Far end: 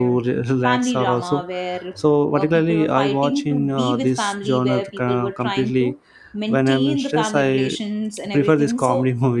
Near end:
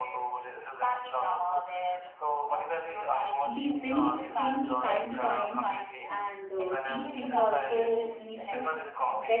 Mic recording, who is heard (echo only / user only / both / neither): both